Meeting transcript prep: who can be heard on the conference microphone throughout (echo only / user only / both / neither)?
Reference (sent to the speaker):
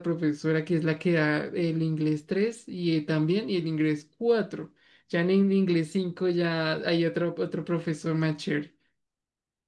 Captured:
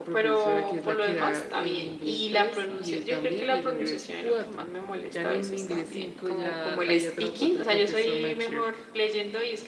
both